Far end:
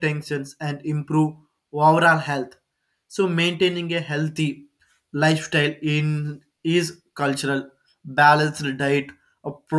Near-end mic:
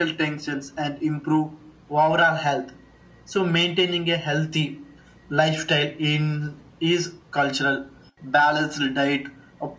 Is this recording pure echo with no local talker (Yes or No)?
Yes